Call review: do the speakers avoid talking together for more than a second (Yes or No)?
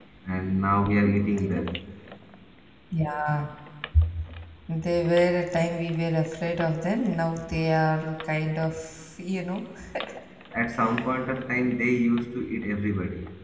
Yes